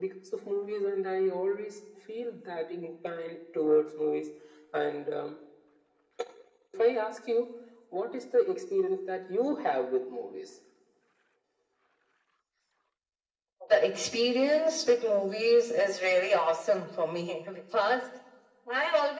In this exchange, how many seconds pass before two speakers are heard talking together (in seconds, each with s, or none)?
none